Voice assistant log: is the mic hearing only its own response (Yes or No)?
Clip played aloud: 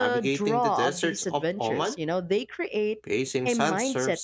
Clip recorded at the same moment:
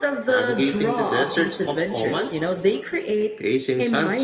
Yes